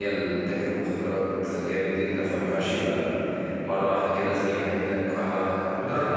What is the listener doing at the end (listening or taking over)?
taking over